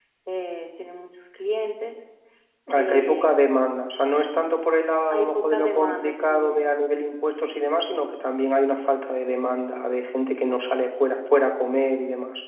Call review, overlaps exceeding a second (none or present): present